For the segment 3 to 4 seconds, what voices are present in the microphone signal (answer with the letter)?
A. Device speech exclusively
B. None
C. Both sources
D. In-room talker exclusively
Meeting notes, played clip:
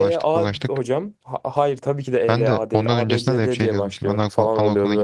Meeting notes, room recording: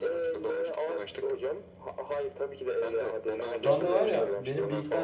C